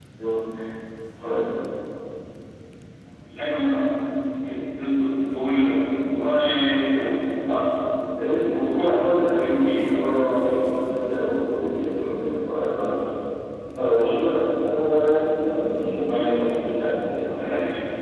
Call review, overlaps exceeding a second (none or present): present